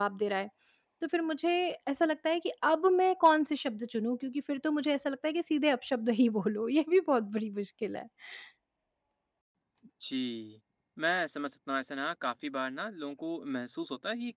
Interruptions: none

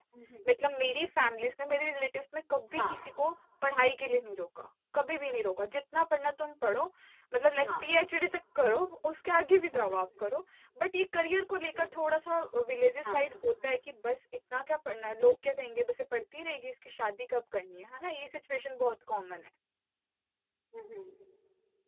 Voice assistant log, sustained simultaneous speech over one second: none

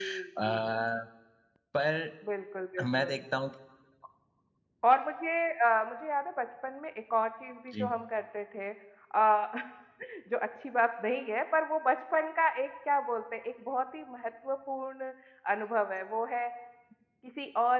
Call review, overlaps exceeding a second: none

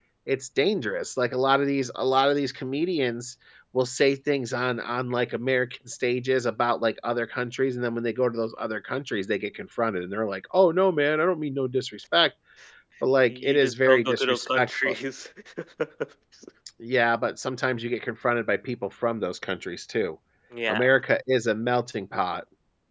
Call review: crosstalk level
present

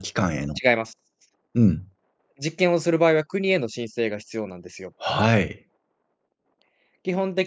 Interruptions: none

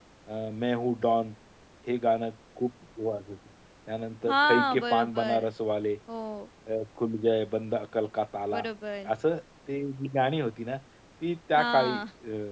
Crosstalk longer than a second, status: present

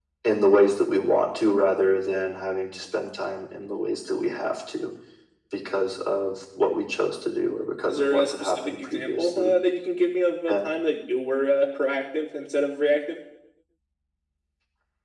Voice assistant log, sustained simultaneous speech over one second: present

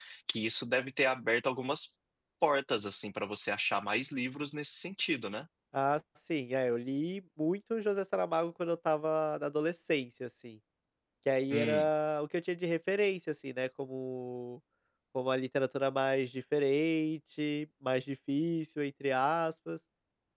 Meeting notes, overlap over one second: none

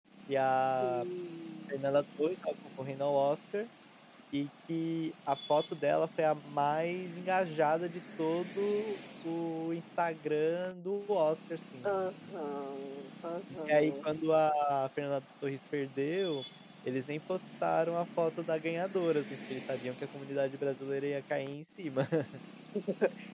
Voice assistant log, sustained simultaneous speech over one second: none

